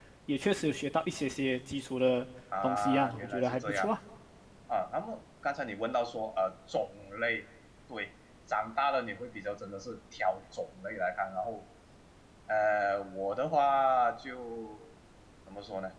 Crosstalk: present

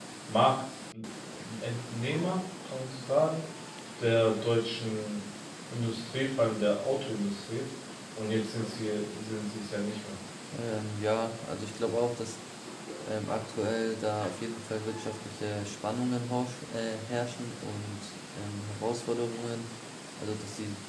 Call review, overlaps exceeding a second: none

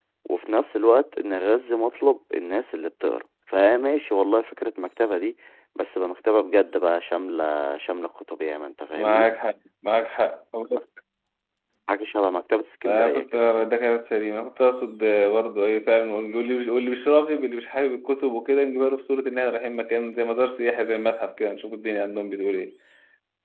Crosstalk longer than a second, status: none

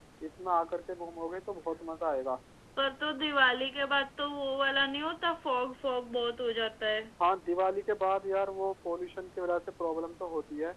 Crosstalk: none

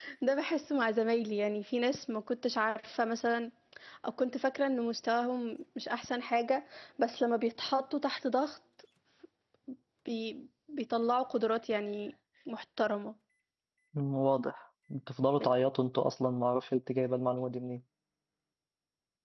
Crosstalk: none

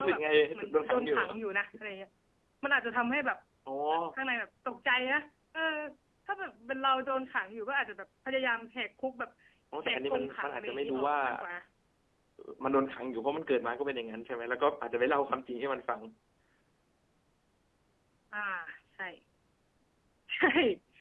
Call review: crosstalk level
present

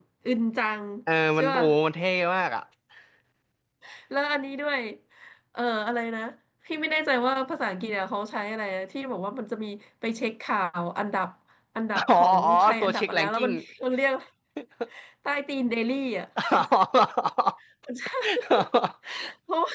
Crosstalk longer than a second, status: present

